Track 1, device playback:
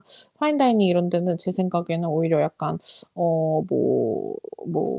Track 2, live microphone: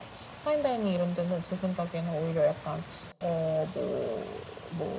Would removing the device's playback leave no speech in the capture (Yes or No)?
Yes